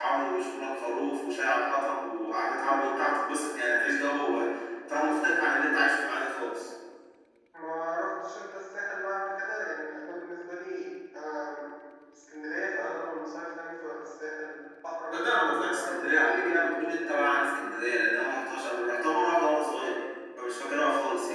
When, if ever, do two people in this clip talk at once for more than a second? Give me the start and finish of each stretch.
15.8-17.5

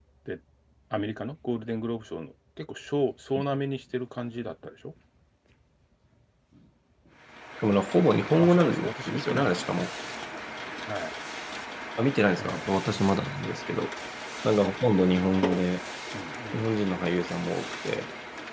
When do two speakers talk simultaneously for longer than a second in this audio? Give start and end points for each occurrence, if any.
8.4-9.8

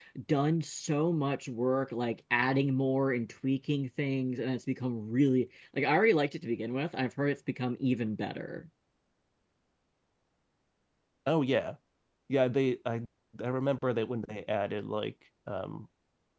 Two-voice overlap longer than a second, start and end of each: none

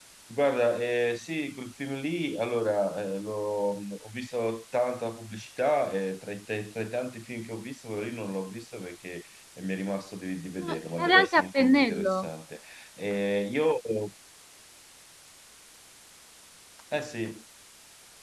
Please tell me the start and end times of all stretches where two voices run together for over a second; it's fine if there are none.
10.6-12.2

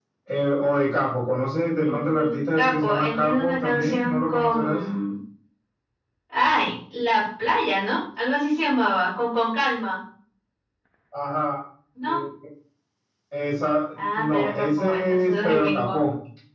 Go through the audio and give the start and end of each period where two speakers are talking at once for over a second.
1.8-4.8, 14.0-16.0

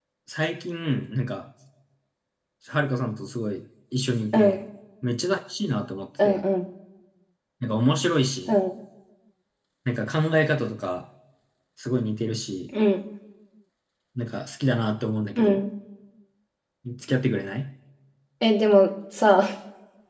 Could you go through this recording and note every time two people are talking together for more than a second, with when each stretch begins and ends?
none

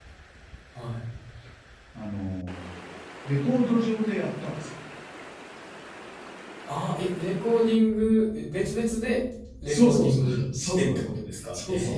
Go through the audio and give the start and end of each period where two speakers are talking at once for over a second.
9.7-11.0

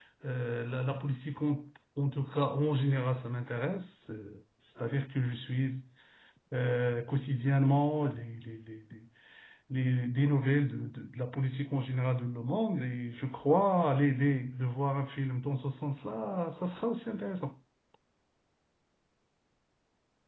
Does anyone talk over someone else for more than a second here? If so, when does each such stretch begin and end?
none

